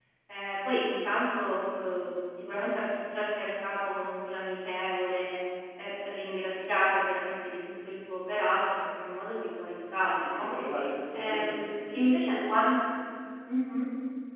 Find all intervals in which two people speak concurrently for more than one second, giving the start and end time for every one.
11.1-12.4

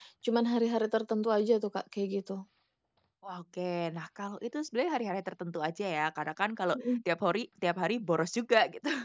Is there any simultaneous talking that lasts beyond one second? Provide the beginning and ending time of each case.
none

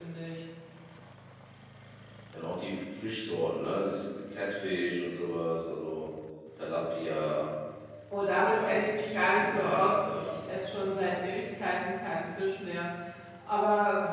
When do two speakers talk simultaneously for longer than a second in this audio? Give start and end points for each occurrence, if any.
8.5-10.3

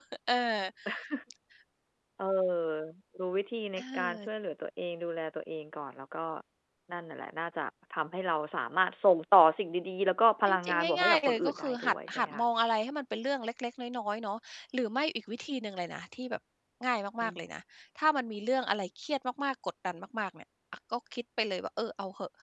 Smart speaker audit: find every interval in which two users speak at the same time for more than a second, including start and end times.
10.5-12.4

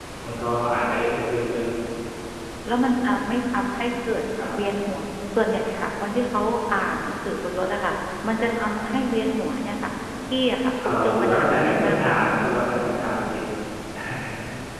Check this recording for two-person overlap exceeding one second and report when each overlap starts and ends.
11.0-12.3

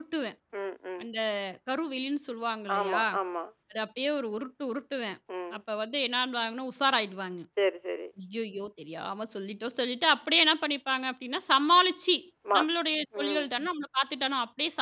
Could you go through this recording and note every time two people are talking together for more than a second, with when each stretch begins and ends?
none

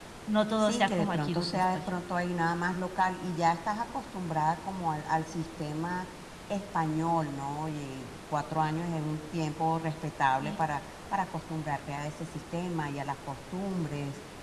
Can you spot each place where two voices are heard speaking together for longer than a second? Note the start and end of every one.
0.6-1.8

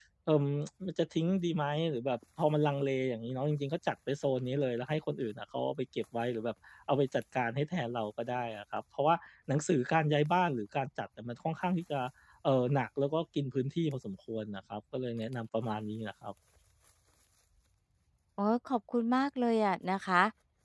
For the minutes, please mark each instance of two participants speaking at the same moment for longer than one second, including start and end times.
none

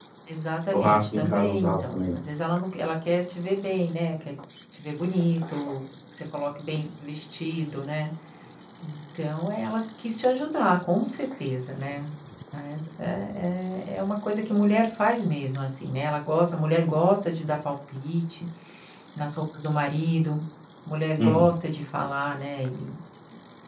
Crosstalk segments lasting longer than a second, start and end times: 0.7-2.2

